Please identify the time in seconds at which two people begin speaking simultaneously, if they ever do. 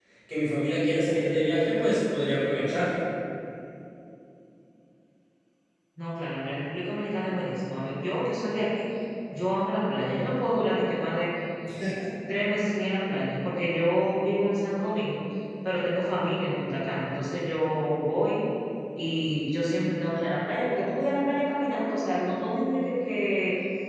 none

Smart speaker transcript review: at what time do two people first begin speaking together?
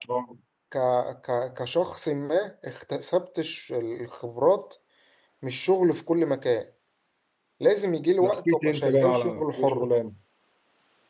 8.2 s

